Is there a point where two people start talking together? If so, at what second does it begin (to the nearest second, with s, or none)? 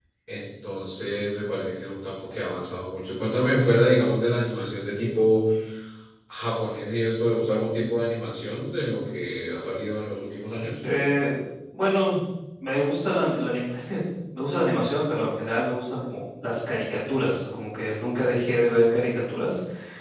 none